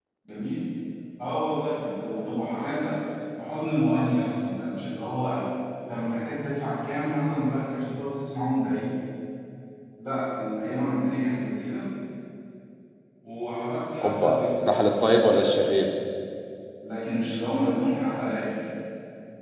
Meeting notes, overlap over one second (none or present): present